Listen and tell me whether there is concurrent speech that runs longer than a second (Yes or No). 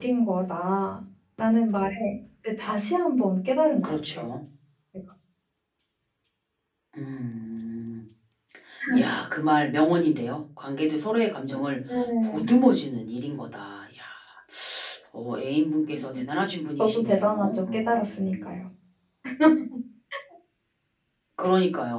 Yes